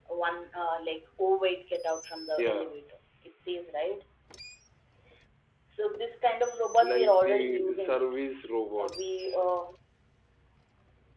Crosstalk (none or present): present